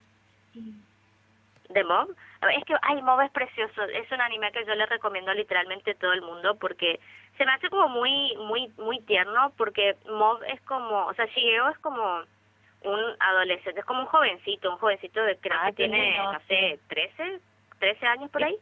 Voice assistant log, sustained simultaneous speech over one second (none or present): present